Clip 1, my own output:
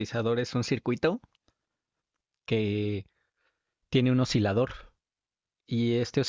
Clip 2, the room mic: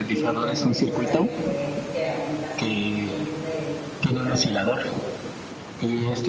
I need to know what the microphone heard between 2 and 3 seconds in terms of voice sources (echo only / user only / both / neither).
both